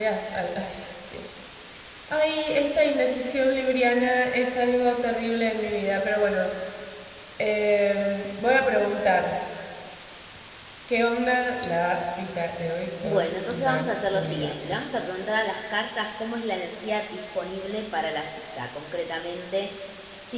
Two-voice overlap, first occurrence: 13.0 s

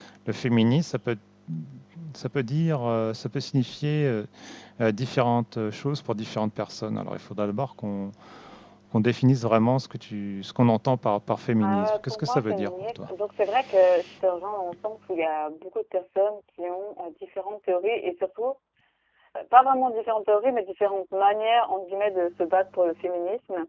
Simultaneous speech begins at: 11.6 s

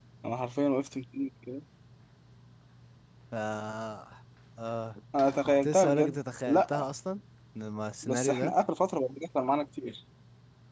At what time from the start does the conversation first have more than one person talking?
5.5 s

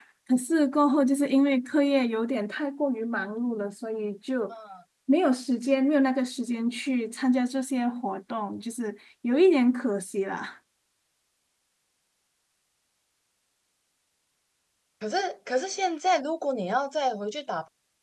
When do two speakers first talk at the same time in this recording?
none

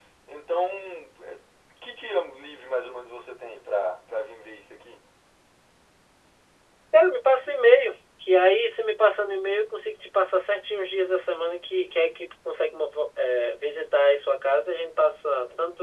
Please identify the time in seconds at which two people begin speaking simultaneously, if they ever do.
none

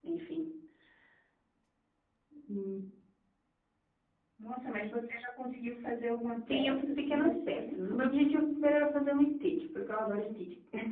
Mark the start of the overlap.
6.5 s

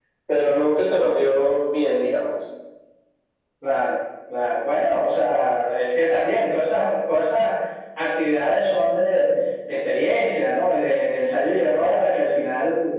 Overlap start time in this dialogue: none

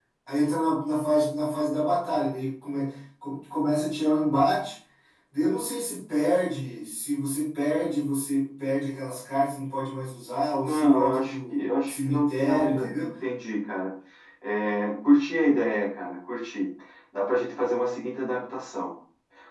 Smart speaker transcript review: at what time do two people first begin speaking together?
10.6 s

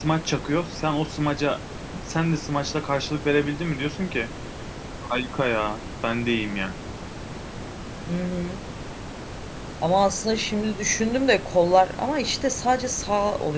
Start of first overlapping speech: none

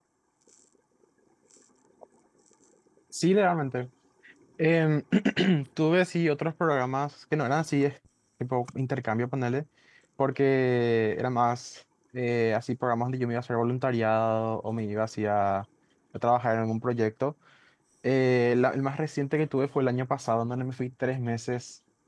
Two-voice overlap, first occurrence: none

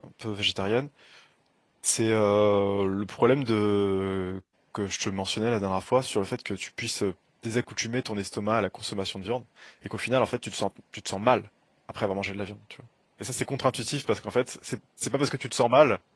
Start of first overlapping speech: none

